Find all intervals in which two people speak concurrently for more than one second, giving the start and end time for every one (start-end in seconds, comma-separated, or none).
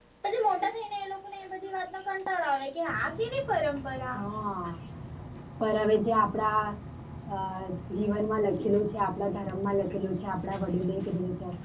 none